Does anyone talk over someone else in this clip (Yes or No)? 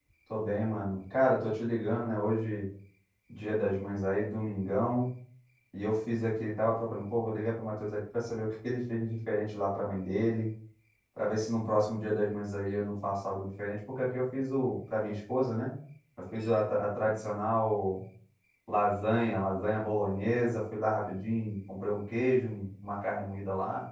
No